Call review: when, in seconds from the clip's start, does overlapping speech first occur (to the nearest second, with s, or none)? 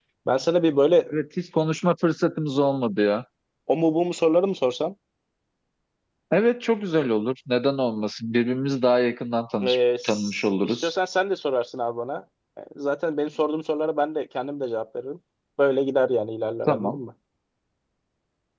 10 s